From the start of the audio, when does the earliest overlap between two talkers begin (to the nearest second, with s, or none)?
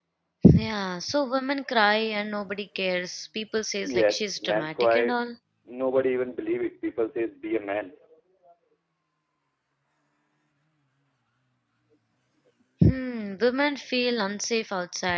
4 s